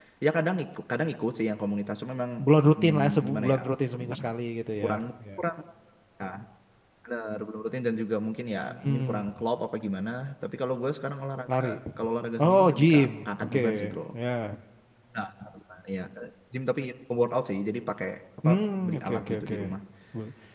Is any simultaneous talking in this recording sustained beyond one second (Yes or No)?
Yes